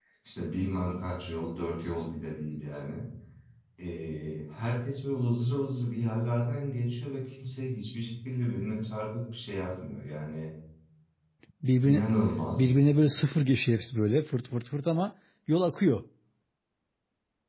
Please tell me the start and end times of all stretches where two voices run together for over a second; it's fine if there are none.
none

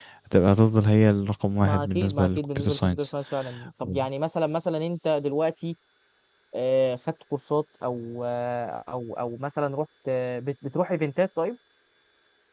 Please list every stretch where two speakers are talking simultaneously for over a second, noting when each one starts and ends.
1.6-3.1

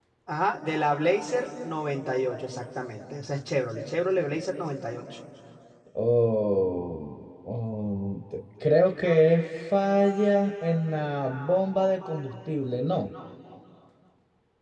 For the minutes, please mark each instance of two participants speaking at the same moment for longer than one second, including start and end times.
none

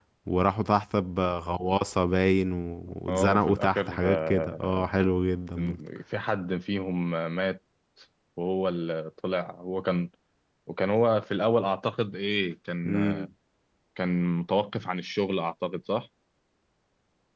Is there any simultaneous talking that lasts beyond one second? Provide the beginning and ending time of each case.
3.1-4.7

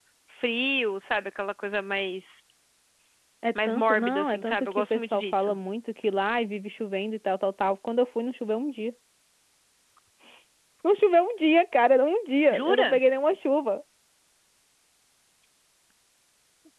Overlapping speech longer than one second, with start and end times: 3.6-5.5

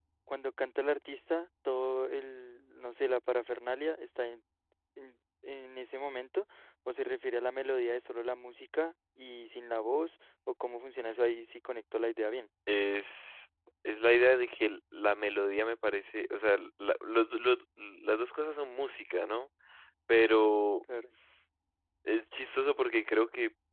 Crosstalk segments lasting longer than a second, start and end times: none

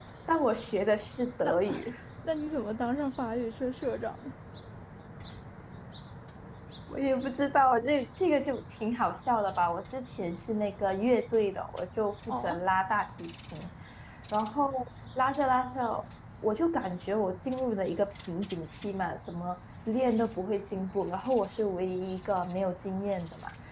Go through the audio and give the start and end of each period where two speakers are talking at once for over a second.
none

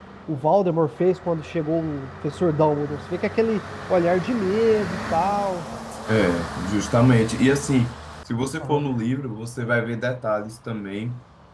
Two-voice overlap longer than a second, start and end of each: none

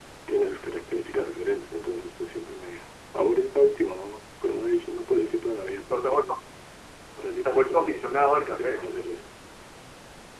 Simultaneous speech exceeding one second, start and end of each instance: 7.4-8.9

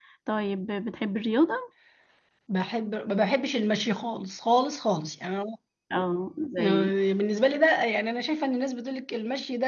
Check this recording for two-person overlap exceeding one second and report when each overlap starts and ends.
none

